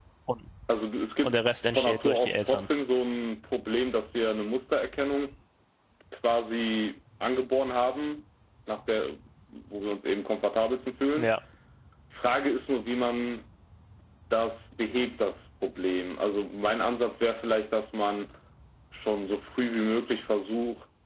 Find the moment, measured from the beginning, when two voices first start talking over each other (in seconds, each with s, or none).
1.2 s